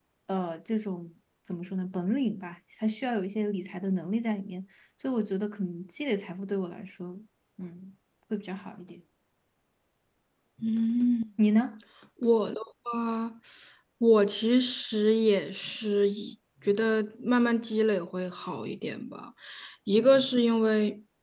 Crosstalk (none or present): none